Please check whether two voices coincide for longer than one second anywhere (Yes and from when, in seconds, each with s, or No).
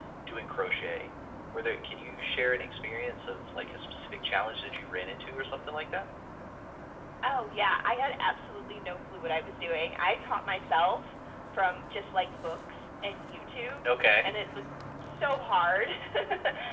No